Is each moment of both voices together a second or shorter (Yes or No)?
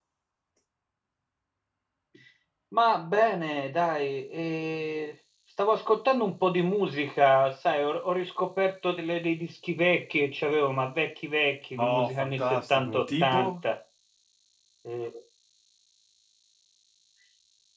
No